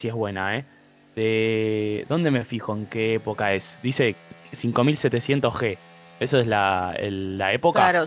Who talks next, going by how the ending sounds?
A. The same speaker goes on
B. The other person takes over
B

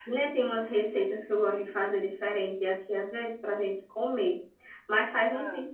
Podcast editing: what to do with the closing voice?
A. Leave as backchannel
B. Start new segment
A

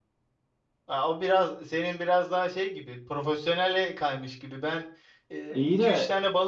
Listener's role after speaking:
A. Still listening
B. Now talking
A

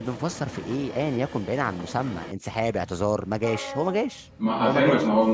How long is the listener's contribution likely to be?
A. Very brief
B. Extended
B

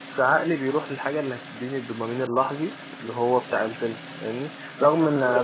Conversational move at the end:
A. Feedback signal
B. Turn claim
A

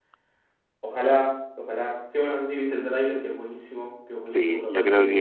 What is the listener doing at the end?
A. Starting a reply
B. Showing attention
A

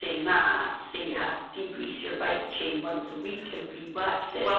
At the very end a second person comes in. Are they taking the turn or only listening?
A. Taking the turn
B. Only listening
A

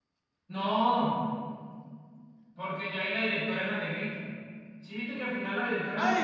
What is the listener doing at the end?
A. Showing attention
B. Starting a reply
B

